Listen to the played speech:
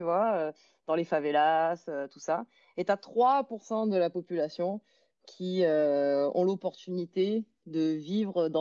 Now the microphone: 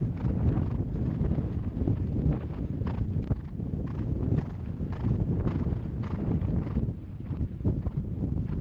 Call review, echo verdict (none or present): none